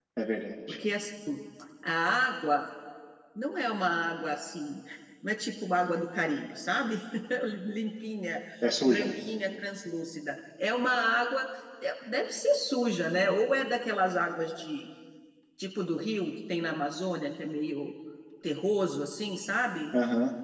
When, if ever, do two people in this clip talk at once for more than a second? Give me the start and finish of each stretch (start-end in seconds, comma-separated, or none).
none